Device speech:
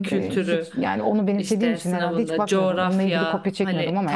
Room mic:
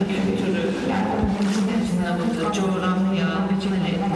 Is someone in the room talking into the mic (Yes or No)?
No